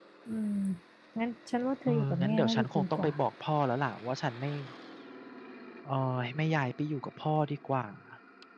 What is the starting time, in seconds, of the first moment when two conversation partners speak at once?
1.9 s

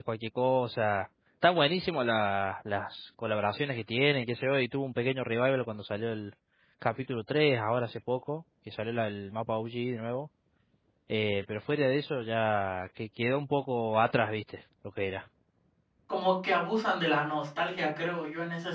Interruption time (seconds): none

